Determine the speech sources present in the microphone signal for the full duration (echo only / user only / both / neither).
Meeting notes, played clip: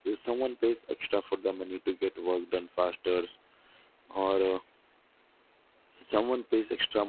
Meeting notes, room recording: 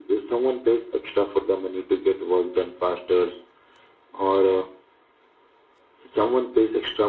echo only